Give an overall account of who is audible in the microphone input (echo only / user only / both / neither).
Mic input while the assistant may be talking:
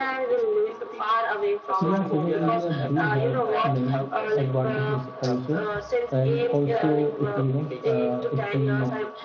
both